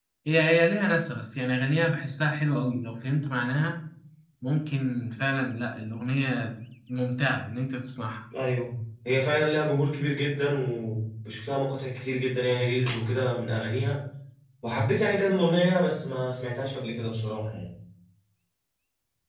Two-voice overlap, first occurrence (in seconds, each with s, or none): none